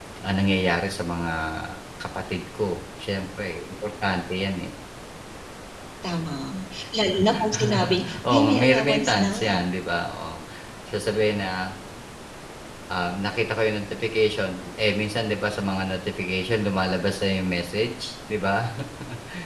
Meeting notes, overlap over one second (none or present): present